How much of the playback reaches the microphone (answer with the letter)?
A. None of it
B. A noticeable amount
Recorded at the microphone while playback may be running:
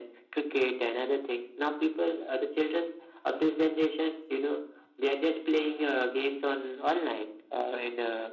B